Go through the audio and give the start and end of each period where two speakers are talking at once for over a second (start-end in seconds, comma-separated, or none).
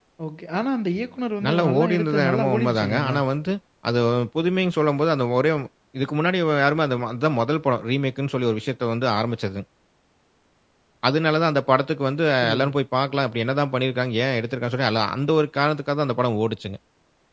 1.4-3.2